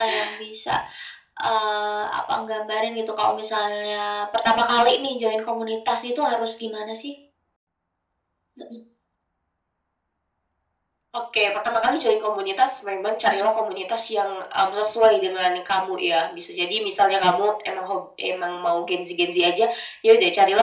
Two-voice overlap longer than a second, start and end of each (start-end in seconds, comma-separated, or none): none